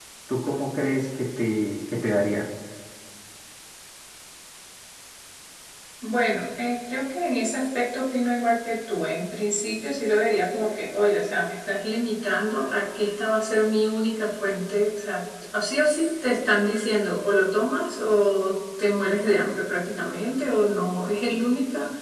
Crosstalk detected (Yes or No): No